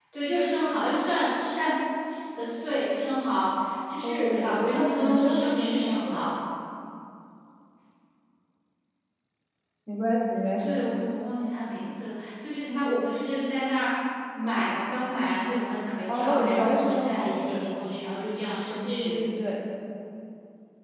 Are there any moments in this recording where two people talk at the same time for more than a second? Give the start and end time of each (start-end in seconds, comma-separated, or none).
4.0-6.3, 16.1-17.7